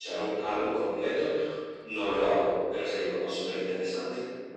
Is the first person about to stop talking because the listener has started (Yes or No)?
Yes